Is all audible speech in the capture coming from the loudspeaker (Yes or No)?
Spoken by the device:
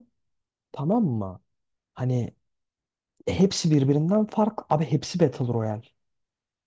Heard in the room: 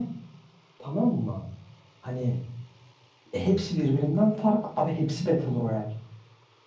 Yes